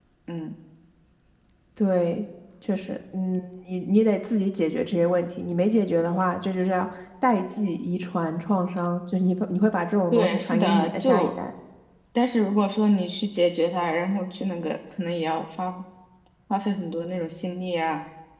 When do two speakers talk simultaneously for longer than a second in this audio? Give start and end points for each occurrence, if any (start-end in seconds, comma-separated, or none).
10.1-11.3